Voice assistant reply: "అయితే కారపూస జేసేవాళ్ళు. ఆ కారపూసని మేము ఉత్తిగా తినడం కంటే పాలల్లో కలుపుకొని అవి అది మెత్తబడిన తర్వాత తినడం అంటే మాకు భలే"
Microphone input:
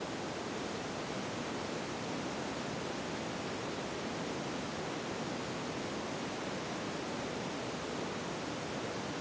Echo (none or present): none